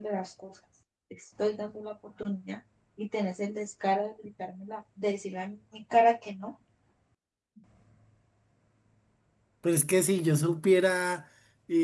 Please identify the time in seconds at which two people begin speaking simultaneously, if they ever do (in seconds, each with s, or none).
none